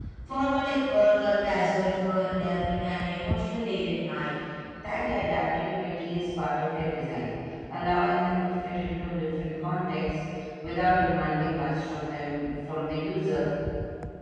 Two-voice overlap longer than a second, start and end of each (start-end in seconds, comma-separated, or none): none